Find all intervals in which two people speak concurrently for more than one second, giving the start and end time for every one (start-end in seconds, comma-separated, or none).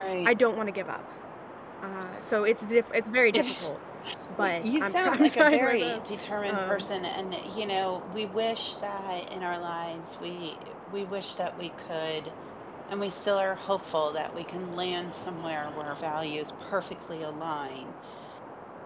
4.4-6.0